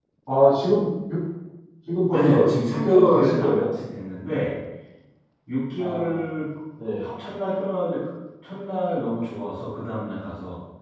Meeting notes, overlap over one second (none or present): present